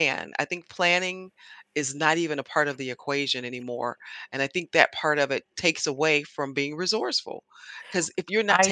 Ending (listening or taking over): listening